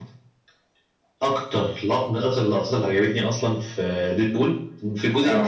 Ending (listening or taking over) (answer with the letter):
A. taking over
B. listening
B